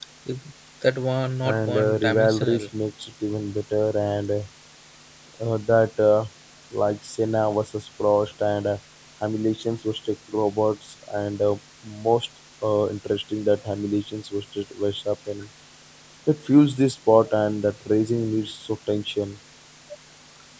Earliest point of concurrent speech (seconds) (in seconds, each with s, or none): 1.4 s